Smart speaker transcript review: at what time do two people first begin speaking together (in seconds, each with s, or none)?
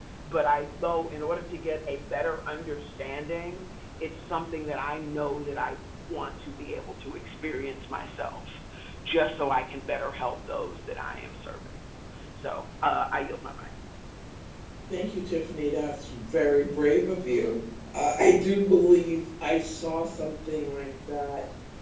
none